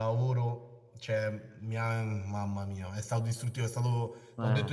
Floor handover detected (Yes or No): No